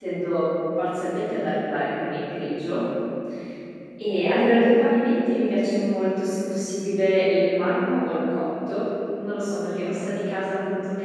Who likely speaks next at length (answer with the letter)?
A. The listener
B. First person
B